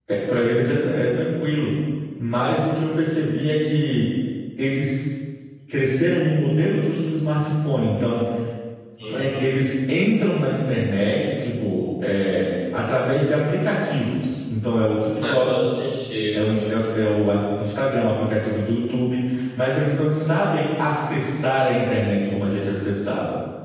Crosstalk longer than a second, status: none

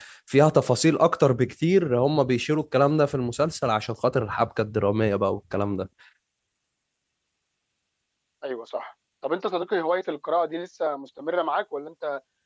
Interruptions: none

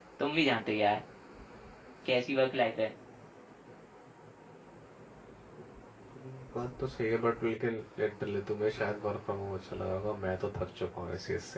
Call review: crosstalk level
none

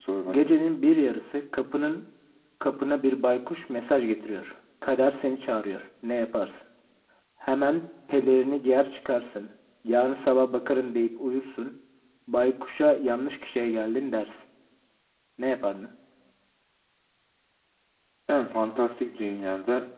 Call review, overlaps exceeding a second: none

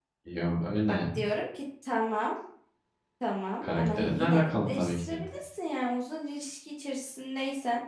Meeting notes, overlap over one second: present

